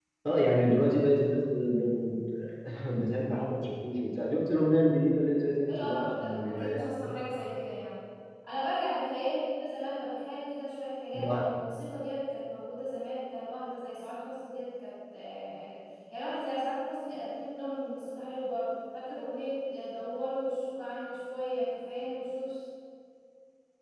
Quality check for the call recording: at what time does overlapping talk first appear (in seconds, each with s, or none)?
5.7 s